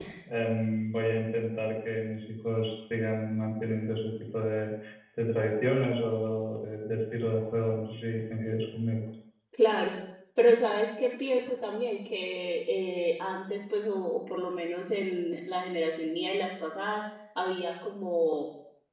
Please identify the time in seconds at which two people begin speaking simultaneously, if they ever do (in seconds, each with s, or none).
none